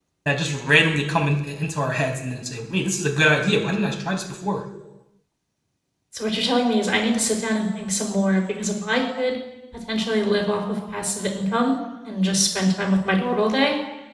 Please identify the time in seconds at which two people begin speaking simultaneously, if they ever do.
none

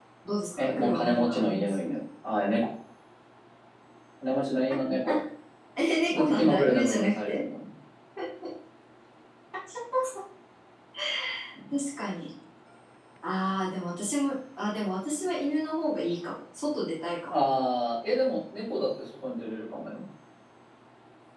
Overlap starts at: 1 s

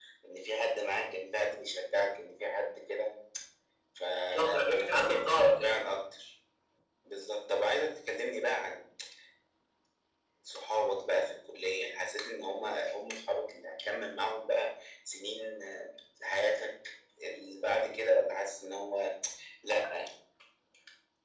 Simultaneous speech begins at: 4 s

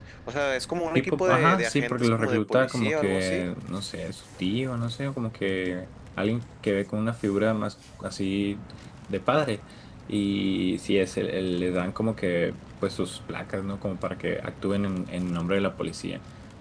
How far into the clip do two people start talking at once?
1 s

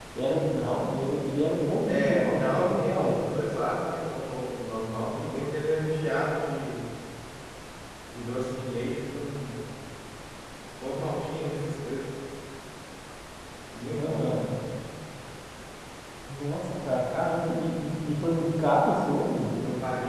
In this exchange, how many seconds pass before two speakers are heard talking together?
2 s

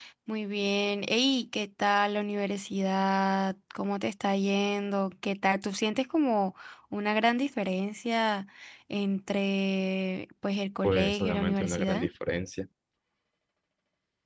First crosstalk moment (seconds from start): 11 s

